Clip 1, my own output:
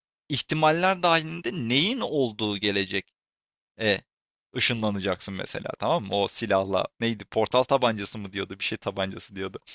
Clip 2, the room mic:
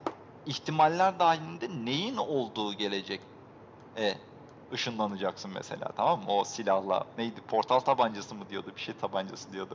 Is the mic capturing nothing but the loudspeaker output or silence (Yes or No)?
Yes